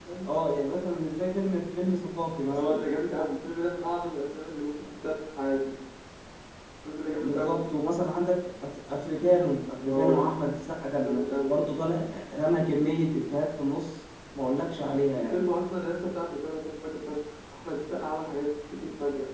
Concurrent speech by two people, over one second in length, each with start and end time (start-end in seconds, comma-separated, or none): none